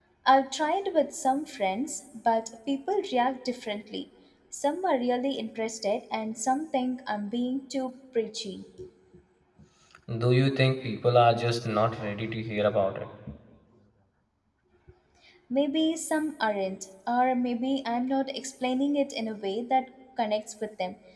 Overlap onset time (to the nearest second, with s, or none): none